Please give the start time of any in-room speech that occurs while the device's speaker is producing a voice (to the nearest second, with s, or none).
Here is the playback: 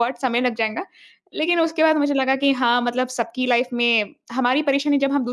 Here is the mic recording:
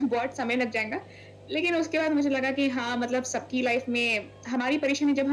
none